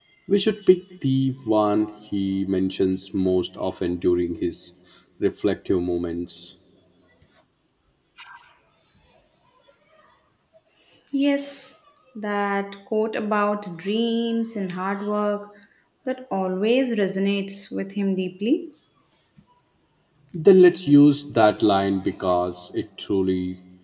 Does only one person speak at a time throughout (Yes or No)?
Yes